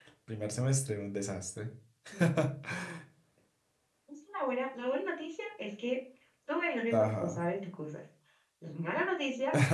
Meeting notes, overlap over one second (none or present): none